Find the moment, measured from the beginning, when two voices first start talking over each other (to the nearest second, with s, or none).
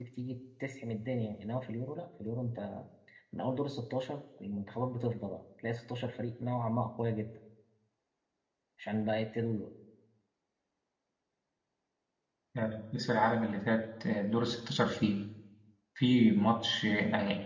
none